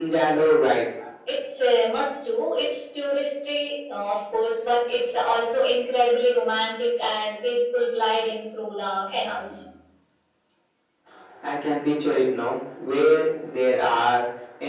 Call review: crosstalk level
none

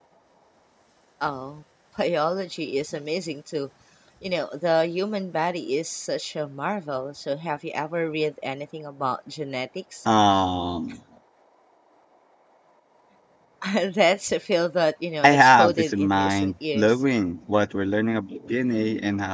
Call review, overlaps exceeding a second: present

